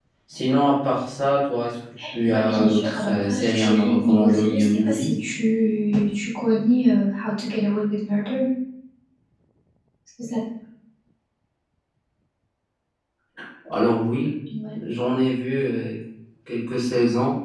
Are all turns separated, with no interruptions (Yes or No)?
No